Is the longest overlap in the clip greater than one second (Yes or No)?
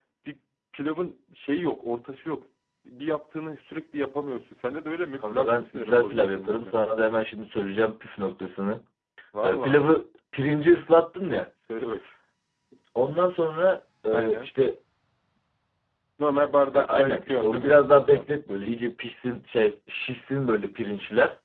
Yes